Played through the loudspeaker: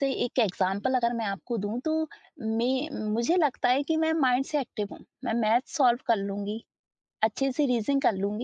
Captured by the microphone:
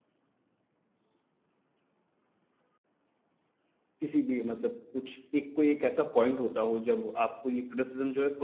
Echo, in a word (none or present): none